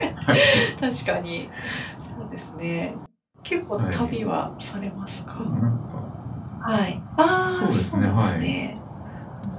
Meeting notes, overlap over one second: present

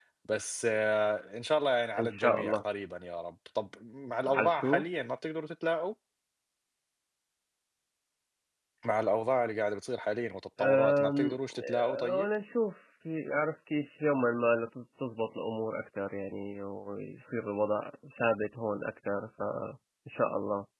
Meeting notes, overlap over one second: present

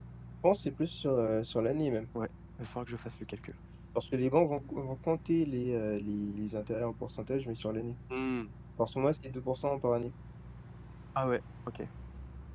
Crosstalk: none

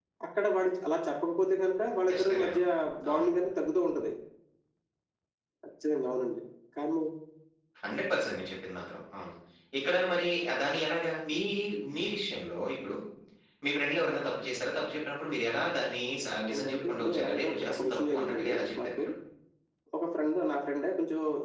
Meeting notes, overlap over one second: present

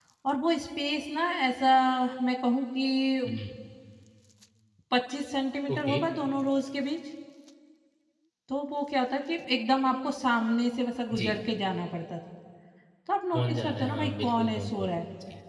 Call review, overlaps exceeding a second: present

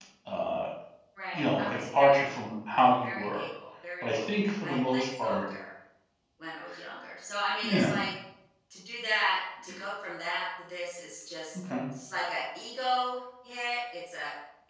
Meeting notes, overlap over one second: present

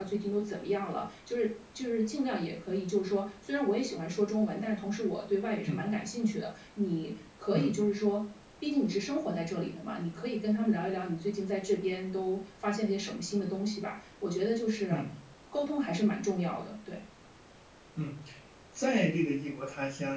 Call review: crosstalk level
none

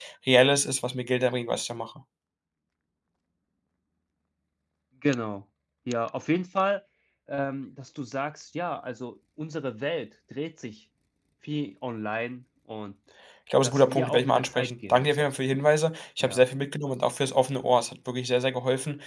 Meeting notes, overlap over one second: present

